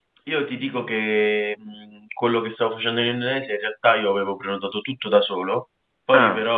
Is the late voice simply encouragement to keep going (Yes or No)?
Yes